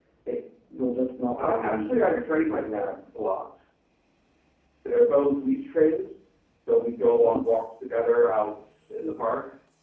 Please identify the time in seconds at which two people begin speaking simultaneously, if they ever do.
1.4 s

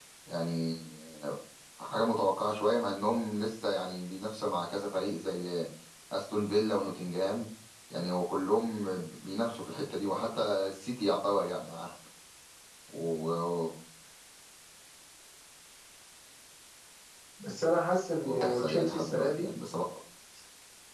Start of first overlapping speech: 18.2 s

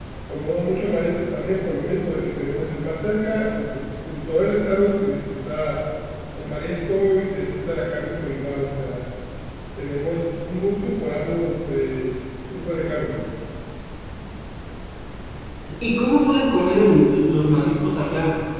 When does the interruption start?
none

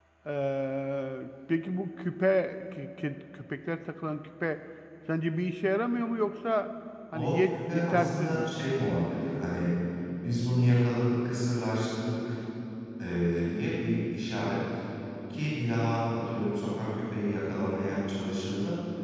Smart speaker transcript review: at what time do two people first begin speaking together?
7.1 s

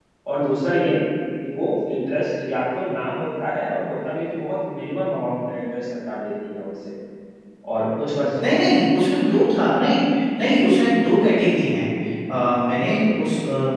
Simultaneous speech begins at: none

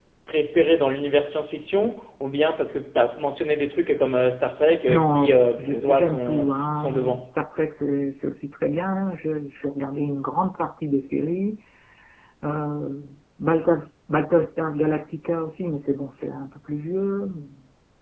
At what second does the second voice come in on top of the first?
4.9 s

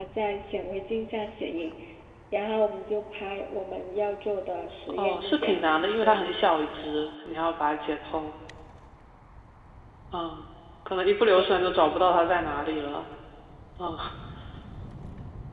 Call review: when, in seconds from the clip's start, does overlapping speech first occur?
5.0 s

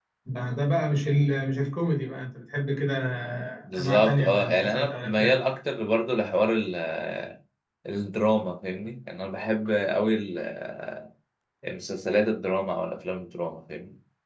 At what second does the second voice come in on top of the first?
3.8 s

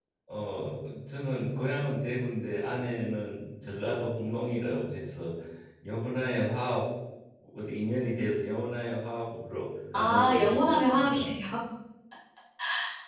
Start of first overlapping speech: 9.9 s

